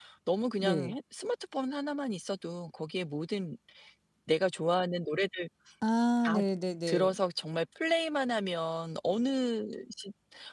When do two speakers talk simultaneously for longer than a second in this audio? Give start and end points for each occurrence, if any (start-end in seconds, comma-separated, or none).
none